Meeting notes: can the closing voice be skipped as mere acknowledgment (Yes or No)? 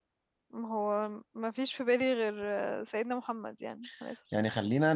No